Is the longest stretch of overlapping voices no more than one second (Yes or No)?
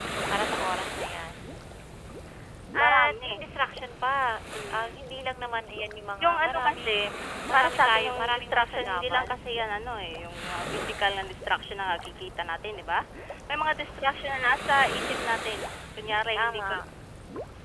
No